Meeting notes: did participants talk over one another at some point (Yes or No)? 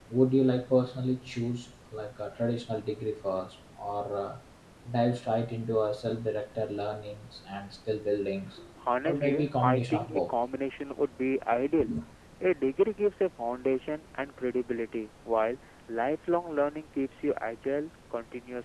Yes